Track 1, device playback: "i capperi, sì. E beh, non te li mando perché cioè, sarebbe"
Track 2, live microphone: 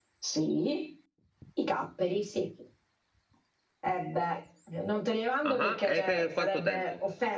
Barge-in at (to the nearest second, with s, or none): 5 s